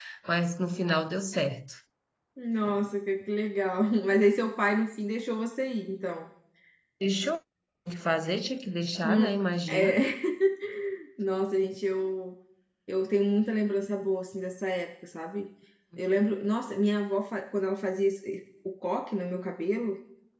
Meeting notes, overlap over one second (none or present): none